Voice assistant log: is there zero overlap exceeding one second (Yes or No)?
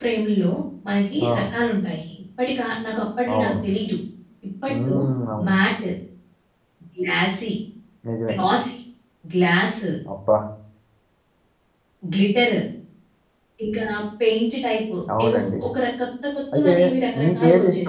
No